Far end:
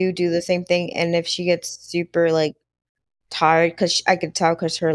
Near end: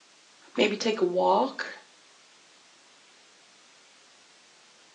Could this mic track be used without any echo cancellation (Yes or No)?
Yes